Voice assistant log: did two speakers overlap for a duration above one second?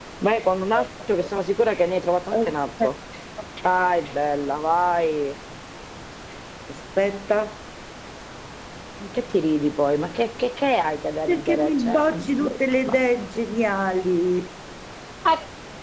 Yes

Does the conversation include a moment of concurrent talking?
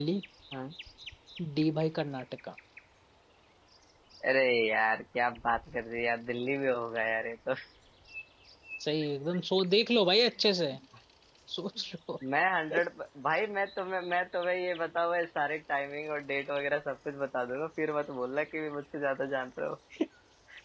No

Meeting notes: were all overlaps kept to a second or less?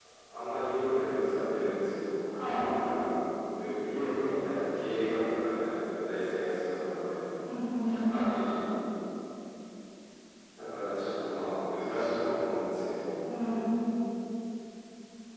Yes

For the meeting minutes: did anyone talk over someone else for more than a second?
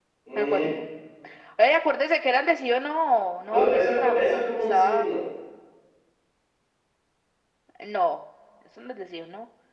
Yes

